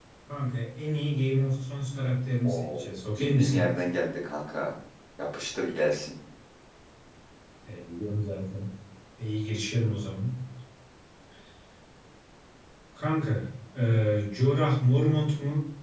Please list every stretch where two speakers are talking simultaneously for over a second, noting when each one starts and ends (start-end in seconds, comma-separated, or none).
2.4-3.7